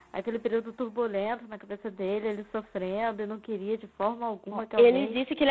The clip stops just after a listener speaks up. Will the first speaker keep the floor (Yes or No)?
No